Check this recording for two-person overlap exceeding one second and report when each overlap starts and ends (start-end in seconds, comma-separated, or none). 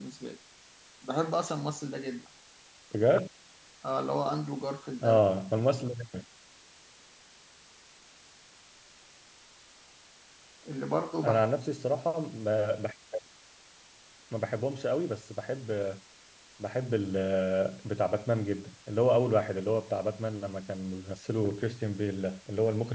none